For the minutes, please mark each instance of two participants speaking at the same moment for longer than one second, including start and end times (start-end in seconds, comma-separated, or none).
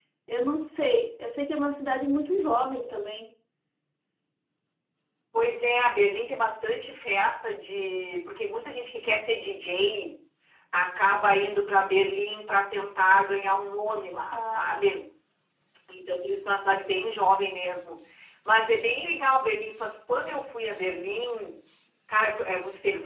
none